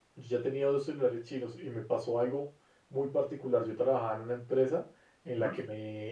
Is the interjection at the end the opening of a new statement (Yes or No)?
No